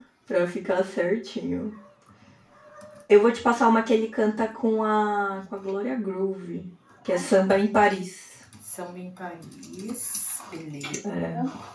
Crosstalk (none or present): none